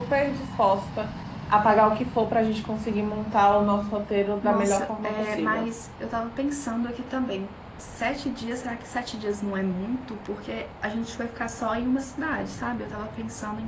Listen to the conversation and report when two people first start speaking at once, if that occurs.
4.4 s

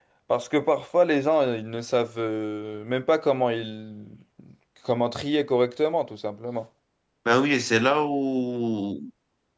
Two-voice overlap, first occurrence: none

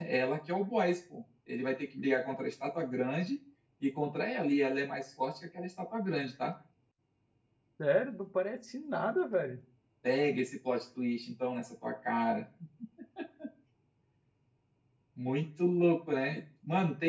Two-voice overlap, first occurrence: none

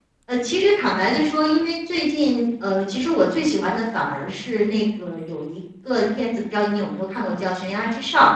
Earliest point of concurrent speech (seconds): none

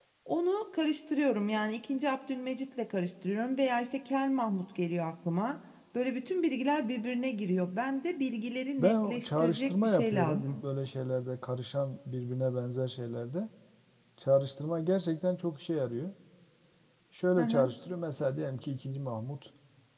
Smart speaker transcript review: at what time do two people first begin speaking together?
8.8 s

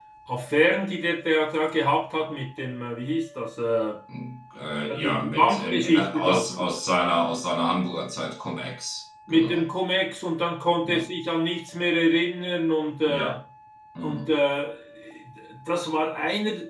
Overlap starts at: 5.0 s

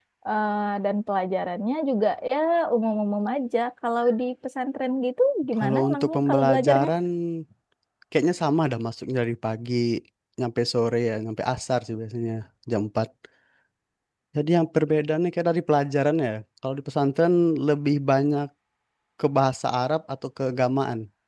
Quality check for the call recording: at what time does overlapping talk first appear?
5.6 s

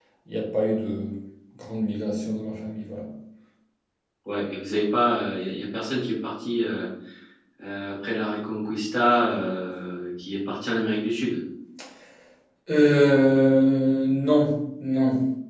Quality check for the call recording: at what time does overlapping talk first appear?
none

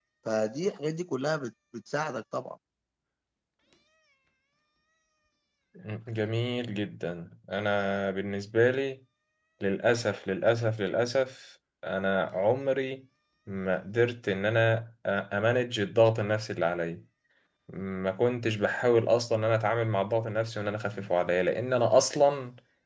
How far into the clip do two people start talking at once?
none

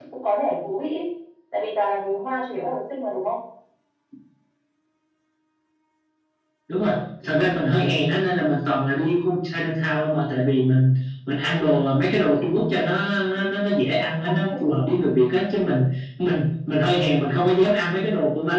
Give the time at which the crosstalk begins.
none

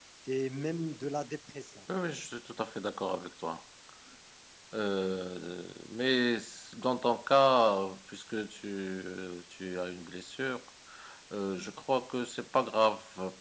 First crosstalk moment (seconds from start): none

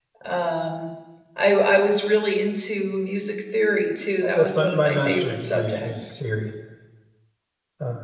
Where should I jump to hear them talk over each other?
4.2 s

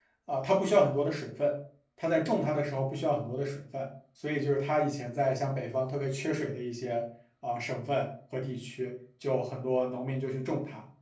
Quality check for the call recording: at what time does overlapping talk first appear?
none

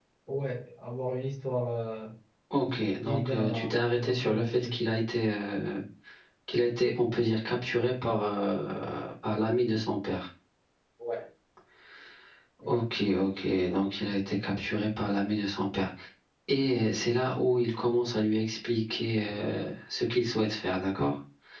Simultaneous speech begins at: 2.9 s

